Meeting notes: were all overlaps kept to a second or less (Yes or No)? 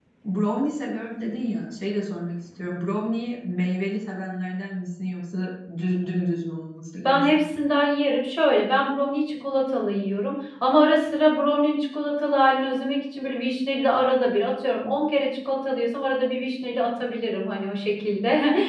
Yes